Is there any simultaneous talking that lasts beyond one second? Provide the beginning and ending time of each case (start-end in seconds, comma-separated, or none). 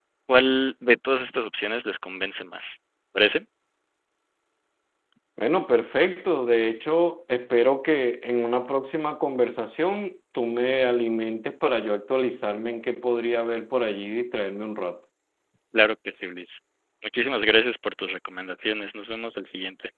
none